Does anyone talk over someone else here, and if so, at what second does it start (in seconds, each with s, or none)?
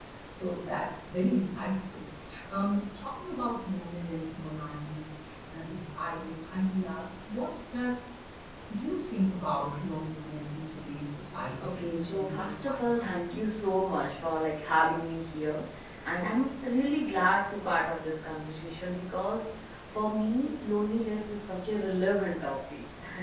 11.6 s